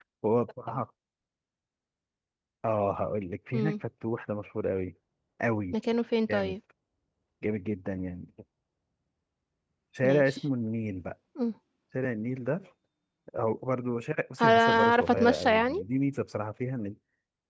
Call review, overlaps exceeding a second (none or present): present